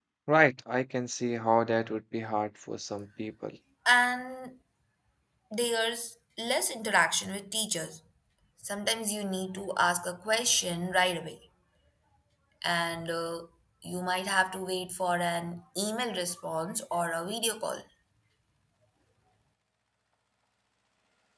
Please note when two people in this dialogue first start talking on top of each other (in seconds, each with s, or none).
none